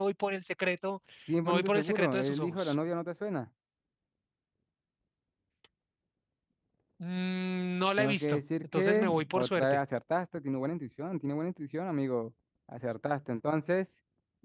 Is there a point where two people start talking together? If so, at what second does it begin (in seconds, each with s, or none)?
1.4 s